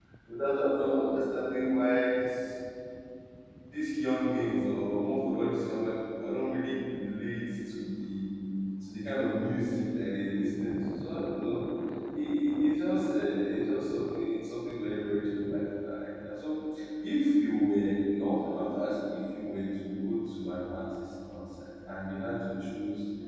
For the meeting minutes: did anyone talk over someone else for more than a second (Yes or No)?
No